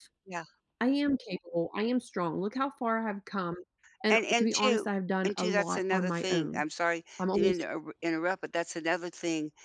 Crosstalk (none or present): present